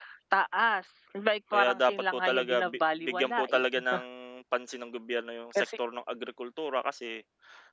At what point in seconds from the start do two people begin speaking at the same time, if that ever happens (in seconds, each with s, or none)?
1.5 s